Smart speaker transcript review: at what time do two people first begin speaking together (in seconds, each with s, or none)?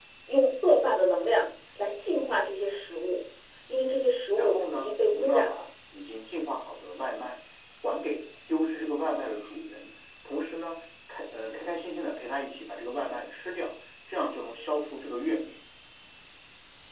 4.4 s